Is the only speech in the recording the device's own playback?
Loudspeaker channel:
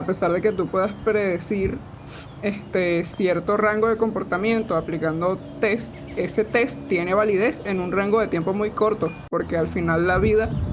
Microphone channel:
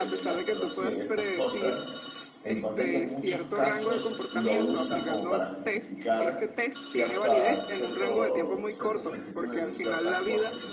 No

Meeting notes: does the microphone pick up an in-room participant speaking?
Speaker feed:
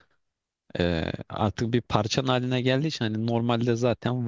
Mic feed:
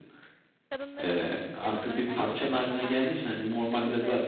Yes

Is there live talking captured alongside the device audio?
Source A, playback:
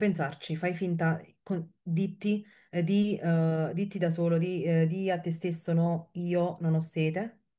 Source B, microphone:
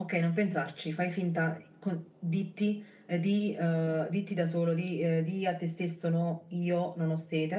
No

